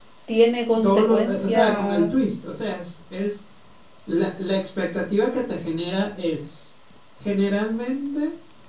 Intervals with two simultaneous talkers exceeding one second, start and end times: 0.8-2.1

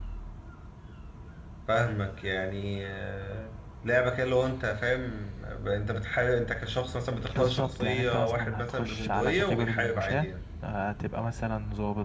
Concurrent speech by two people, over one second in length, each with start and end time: 7.3-10.3

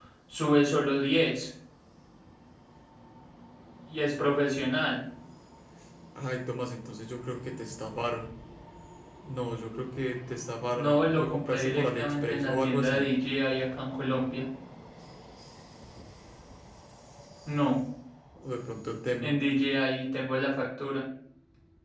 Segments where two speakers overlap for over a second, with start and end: 10.8-13.0

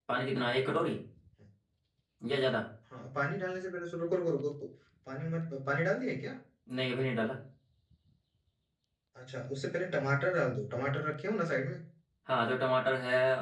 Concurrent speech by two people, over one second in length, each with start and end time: none

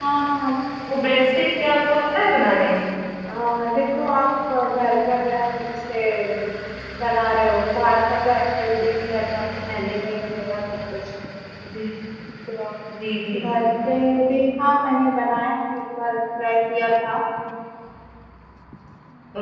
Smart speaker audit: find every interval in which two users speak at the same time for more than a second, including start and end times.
none

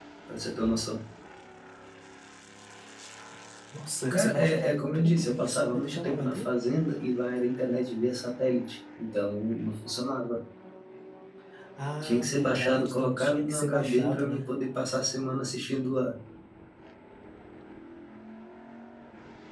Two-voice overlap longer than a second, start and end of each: 4.1-6.5, 12.0-14.4

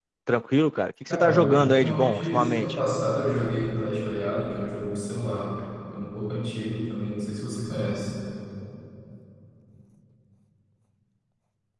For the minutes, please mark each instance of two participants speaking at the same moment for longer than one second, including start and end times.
1.1-2.8

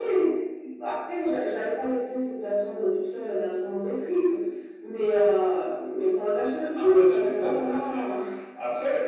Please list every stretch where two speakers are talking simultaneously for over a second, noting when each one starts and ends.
6.8-8.0

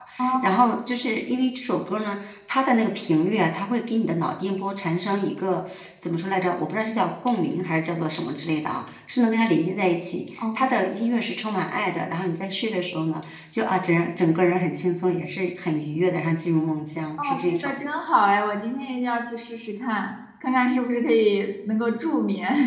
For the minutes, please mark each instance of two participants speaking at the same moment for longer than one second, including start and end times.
none

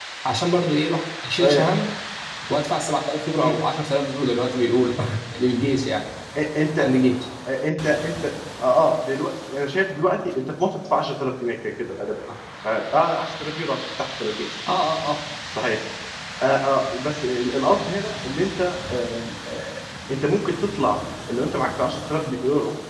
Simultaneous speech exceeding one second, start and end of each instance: none

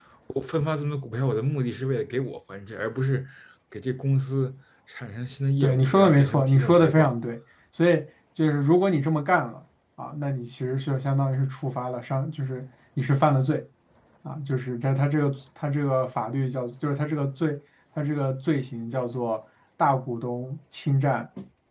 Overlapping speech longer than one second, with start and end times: 5.6-7.1

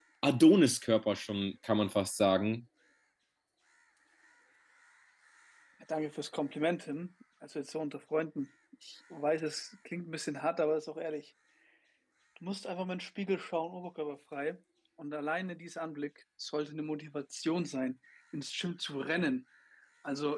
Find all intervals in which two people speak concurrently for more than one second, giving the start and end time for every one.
none

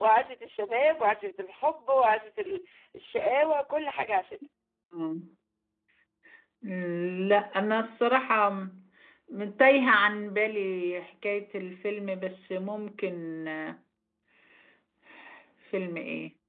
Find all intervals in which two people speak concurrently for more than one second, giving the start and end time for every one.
none

